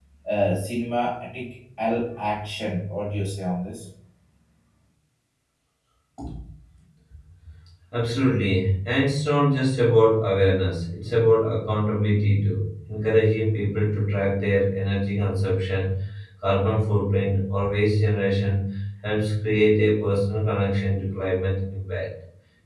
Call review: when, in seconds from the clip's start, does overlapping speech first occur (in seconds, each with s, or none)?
none